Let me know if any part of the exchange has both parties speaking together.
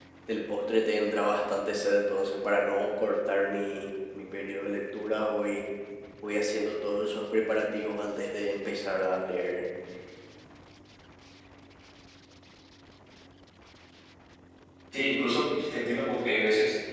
No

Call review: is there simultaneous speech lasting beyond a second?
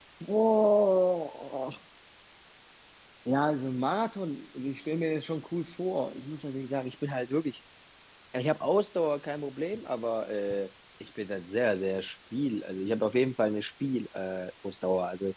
No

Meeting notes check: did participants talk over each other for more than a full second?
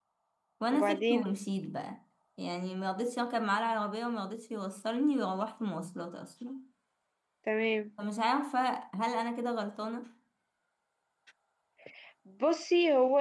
No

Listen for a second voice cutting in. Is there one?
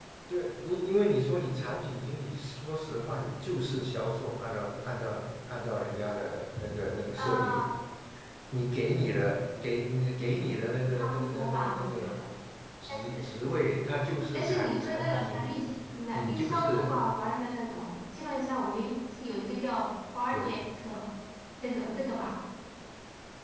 Yes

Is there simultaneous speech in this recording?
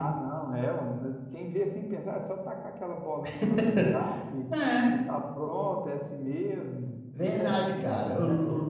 Yes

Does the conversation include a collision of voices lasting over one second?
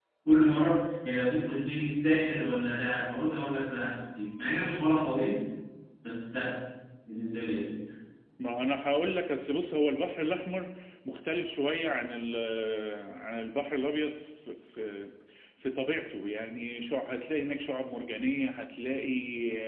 No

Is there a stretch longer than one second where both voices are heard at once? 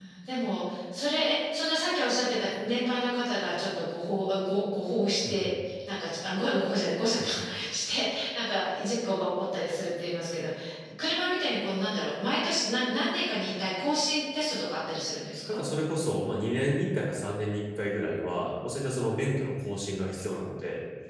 No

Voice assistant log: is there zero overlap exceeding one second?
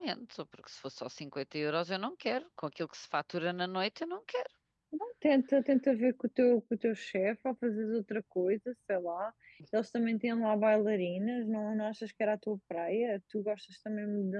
Yes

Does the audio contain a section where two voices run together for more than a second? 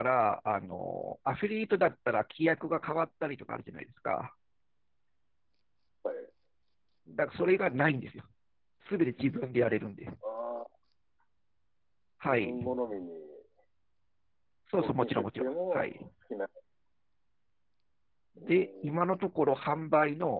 Yes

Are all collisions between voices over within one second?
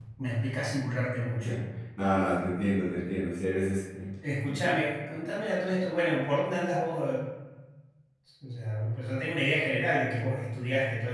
Yes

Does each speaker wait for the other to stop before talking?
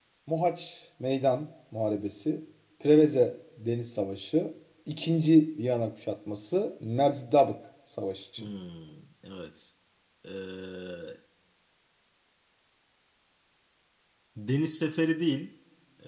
Yes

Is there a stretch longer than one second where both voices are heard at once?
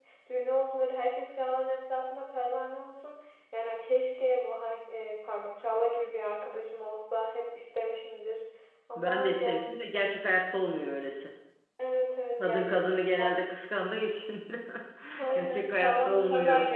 Yes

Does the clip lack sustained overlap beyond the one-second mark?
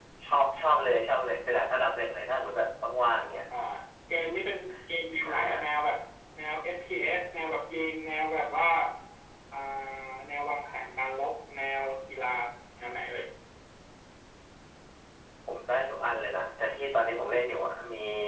Yes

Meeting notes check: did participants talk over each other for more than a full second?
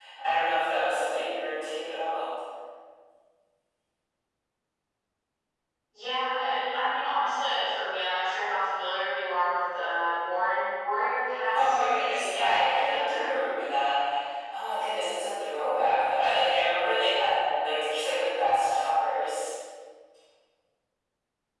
Yes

